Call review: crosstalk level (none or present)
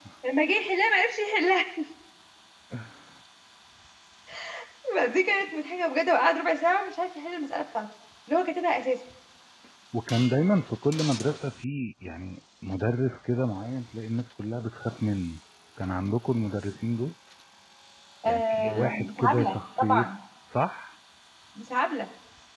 present